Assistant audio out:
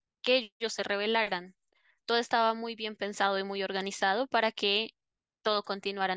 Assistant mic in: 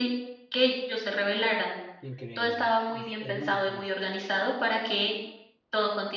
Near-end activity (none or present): present